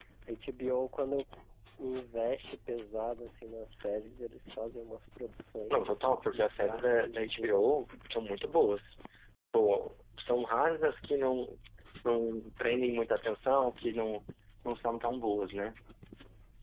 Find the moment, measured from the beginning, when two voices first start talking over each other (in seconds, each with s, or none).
5.7 s